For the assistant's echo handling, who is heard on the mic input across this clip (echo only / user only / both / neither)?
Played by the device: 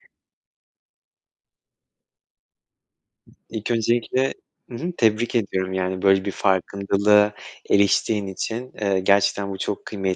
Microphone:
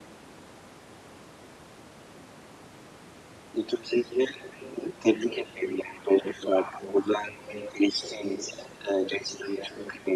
echo only